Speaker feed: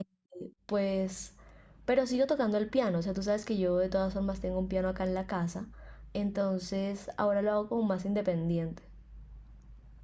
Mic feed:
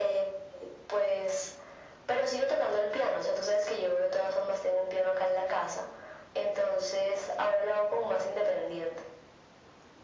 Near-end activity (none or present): none